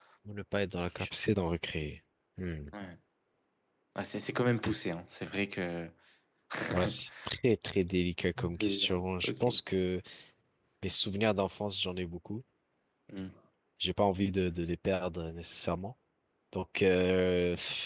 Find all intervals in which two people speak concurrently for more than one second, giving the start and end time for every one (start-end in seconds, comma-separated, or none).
8.4-9.6